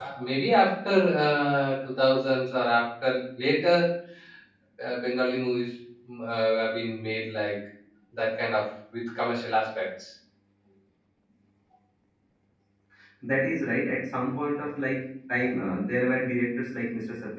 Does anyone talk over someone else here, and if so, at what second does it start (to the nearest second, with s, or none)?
none